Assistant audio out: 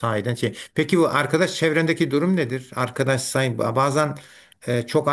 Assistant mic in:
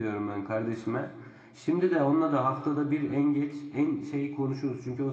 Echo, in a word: none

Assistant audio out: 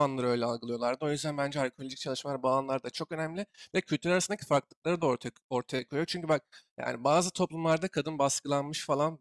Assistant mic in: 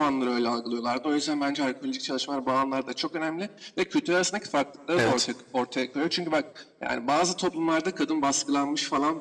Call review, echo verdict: present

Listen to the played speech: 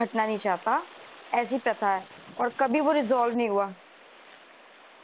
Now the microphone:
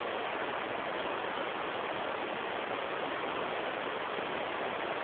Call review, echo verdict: none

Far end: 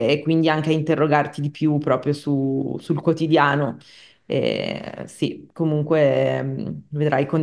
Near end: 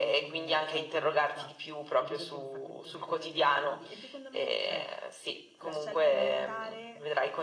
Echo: present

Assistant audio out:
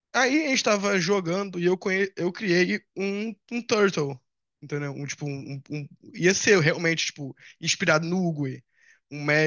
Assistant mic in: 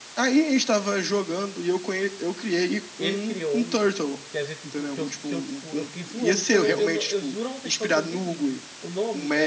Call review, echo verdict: present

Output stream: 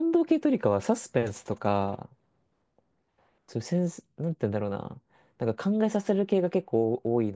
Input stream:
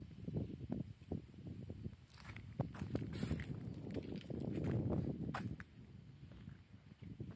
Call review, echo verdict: none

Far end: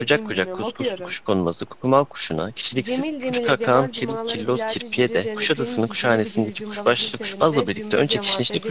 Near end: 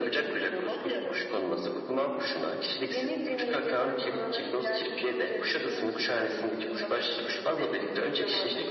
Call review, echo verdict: present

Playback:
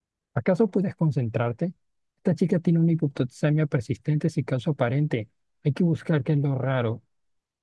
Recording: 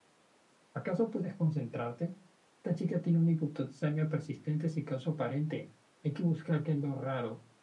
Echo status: present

